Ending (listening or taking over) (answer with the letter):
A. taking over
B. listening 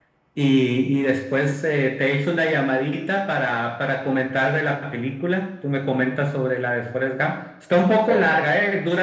B